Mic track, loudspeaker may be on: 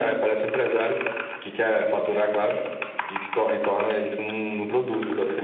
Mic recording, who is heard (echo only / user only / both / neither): echo only